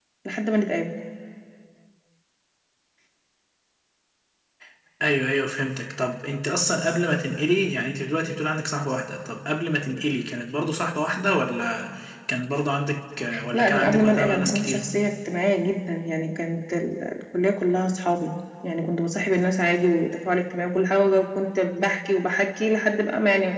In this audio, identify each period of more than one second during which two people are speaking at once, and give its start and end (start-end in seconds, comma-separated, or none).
13.5-14.9